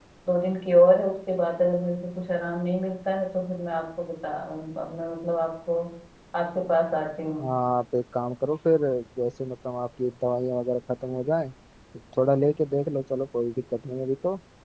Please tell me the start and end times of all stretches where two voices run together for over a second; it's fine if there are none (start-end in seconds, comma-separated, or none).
none